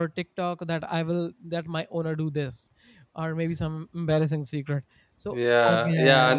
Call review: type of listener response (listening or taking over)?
taking over